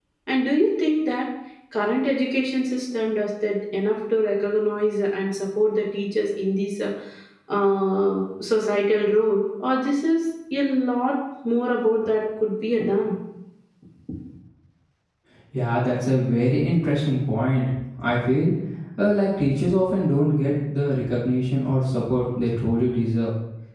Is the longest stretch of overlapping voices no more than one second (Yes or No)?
Yes